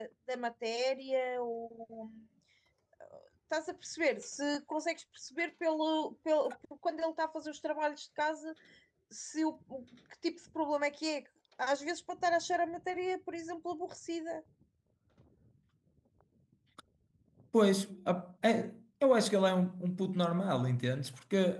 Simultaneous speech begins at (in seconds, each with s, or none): none